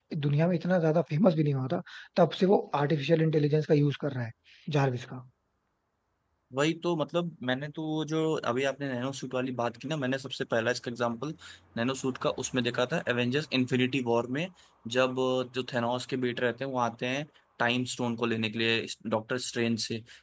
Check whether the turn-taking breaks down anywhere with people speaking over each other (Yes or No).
No